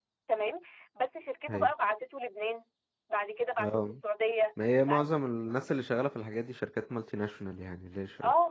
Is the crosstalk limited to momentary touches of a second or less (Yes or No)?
Yes